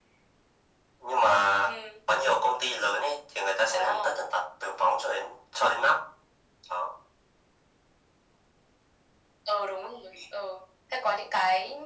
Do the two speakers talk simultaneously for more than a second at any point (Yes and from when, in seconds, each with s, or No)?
No